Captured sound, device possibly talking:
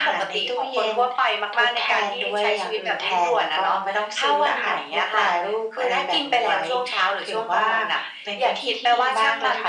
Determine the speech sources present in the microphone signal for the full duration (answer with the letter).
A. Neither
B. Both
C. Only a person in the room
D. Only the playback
D